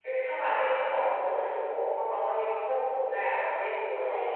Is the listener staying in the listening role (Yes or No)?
Yes